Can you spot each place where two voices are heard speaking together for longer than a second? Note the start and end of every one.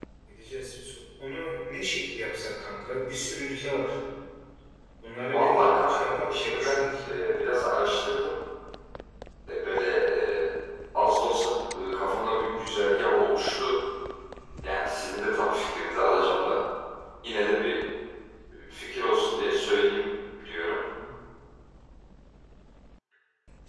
5.1-6.9

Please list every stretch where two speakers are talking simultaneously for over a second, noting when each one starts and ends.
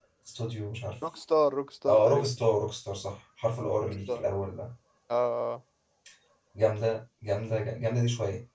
none

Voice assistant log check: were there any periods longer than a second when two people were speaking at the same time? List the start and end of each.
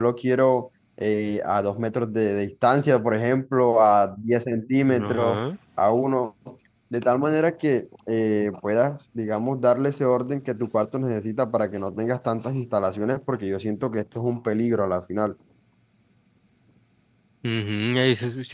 none

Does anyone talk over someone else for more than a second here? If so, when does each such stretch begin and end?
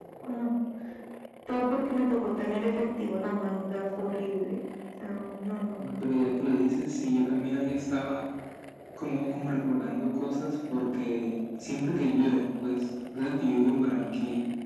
none

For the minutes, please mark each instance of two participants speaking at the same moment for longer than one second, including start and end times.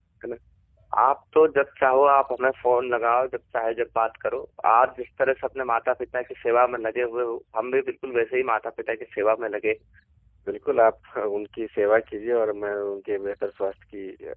none

